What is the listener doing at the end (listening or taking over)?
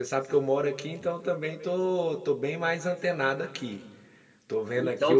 taking over